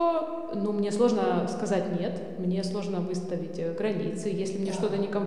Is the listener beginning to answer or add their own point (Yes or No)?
No